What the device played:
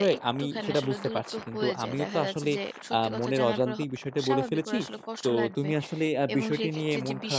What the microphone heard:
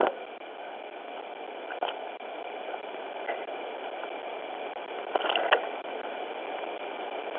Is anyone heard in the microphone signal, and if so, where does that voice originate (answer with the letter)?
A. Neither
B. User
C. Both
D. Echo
A